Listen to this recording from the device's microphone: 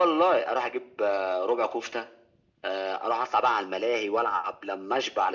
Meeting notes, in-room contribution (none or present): none